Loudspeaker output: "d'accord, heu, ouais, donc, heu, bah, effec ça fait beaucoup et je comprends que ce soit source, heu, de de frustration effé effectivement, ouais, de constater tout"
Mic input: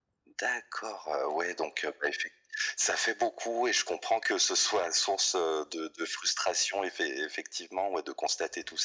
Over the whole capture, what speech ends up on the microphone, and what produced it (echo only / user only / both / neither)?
echo only